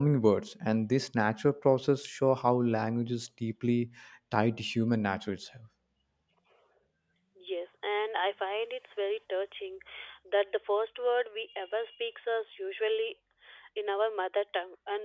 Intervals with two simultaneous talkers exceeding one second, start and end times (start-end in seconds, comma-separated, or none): none